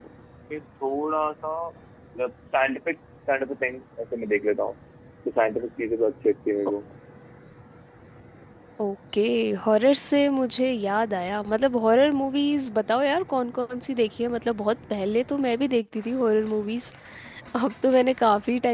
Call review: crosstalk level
none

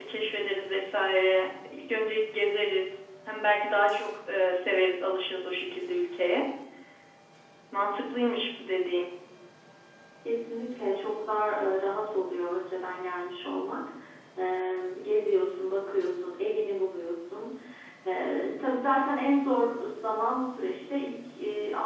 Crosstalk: none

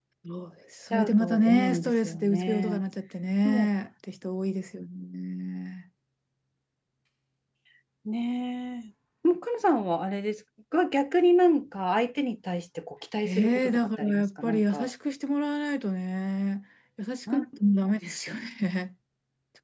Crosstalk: present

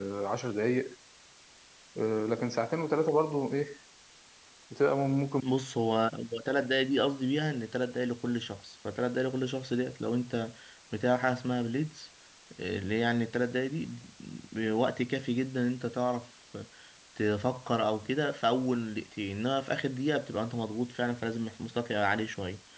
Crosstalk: none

